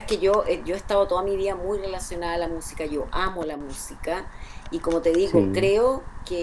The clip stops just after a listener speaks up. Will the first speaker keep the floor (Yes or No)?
Yes